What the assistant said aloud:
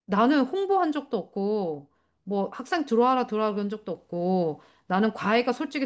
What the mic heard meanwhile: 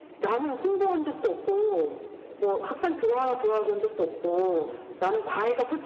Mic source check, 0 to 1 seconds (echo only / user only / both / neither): echo only